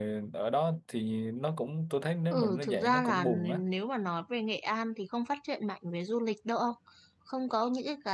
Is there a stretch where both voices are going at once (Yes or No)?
Yes